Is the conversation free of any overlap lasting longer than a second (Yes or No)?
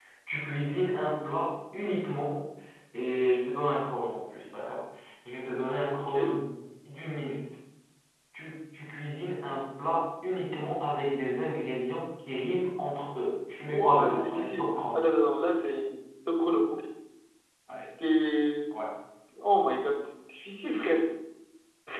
No